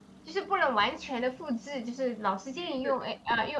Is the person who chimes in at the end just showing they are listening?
Yes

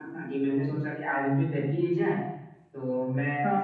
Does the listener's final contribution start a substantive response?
No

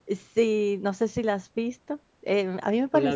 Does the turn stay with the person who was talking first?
Yes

